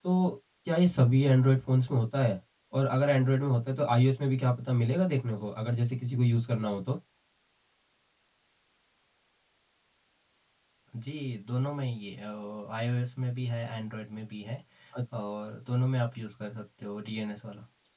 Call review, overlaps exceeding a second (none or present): none